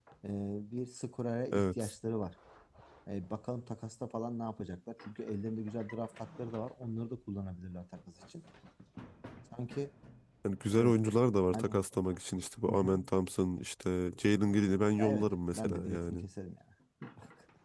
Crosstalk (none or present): present